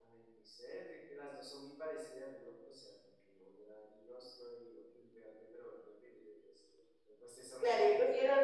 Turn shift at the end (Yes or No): Yes